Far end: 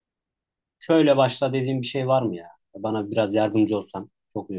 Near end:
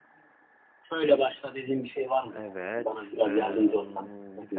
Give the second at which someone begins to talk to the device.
2.3 s

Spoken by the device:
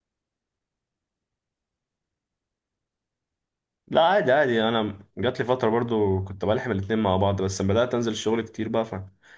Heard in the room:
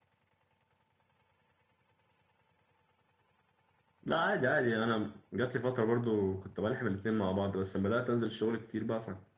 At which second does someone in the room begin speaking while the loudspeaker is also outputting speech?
none

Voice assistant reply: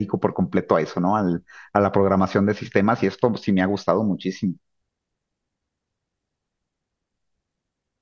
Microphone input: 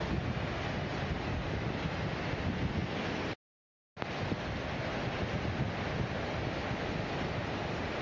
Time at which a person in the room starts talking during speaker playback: none

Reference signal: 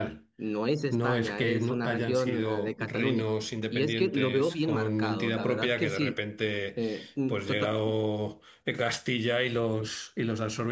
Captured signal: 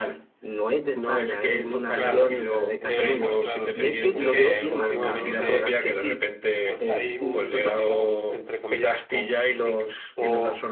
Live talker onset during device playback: 1.9 s

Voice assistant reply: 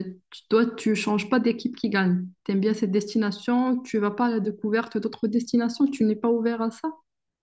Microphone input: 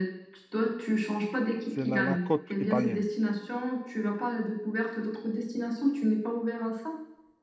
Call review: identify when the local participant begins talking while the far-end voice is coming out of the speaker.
1.6 s

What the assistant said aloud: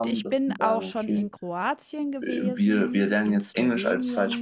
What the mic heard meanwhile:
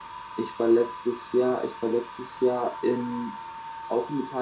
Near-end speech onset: 0.3 s

